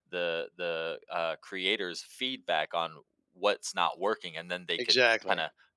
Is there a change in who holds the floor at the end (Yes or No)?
No